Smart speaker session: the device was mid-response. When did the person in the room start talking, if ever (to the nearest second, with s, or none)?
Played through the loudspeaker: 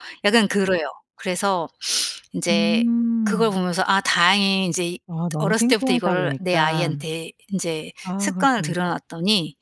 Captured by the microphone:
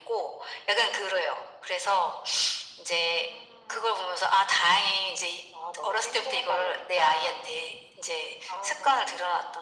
none